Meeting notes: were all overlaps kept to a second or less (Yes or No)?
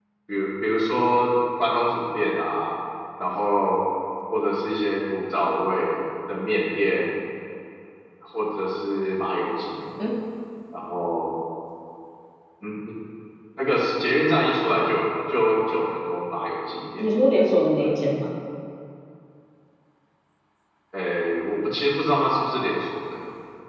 Yes